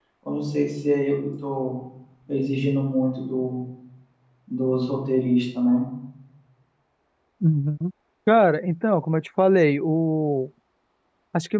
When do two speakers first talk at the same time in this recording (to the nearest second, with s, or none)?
none